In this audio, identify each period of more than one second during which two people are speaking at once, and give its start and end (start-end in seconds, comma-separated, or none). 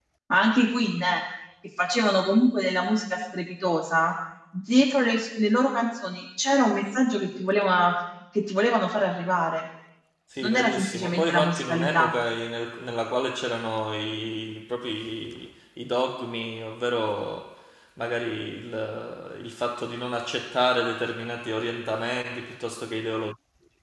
10.4-12.1